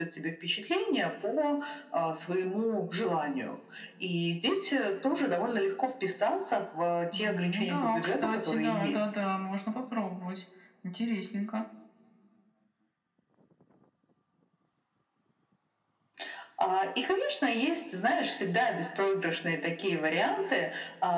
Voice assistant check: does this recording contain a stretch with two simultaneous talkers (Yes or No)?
Yes